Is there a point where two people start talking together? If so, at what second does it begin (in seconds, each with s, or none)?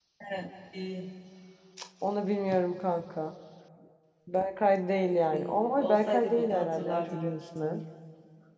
5.3 s